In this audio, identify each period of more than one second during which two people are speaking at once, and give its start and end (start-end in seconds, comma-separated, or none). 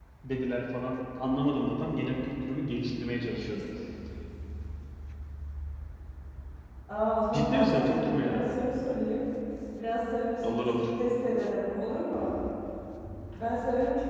7.3-8.6